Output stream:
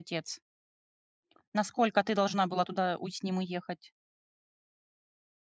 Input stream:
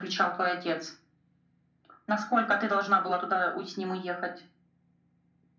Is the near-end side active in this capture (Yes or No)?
No